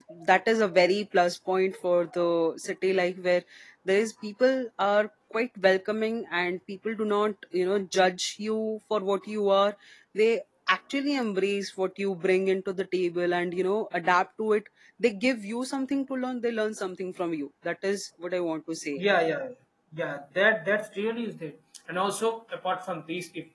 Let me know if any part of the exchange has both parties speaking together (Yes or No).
No